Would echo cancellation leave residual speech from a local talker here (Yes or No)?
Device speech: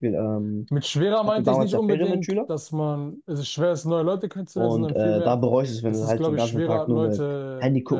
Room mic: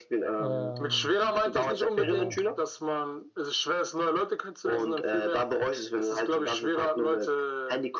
Yes